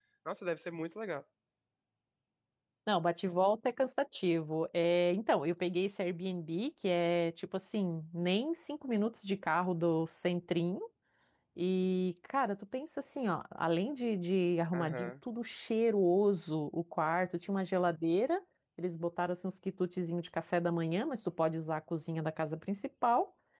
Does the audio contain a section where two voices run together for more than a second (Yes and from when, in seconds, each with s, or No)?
No